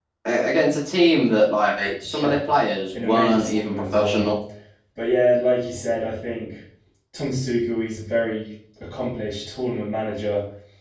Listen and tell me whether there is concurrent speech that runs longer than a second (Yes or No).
Yes